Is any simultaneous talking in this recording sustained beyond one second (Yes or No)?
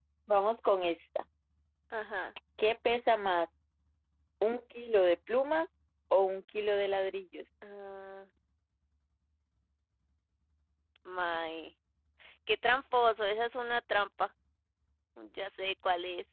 No